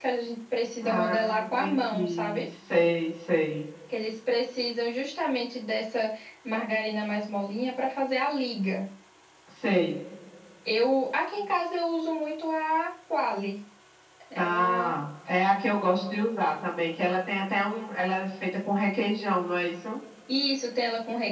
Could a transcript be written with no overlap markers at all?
No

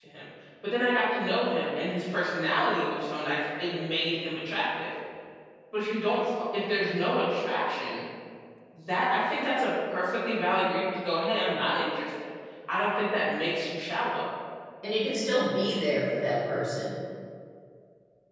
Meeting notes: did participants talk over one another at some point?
No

